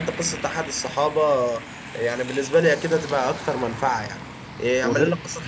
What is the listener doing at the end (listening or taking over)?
listening